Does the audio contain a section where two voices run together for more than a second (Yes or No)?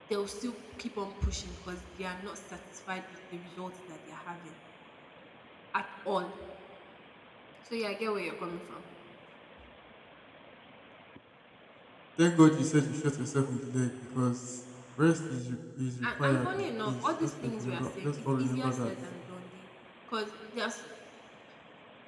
Yes